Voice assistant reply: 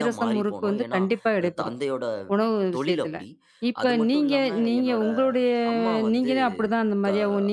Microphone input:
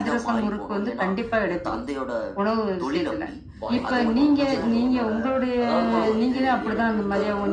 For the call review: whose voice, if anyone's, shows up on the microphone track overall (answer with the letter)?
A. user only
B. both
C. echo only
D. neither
B